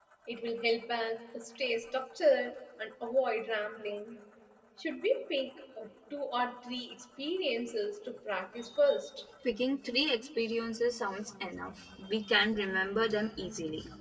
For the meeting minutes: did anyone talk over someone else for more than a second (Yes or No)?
No